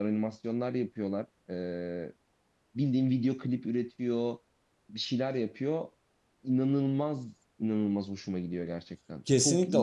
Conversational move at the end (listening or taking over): taking over